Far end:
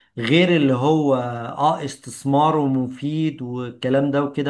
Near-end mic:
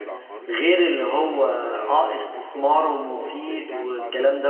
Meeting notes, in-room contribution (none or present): present